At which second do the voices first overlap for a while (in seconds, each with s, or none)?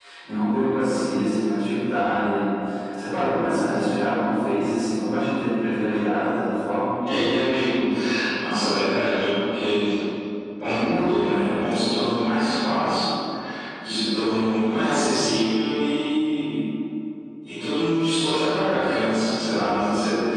none